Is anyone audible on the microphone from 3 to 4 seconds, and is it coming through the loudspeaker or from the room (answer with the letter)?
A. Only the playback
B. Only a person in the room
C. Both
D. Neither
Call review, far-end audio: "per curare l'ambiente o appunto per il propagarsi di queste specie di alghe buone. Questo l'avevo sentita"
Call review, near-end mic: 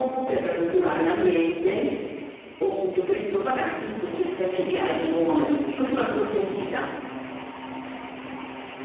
A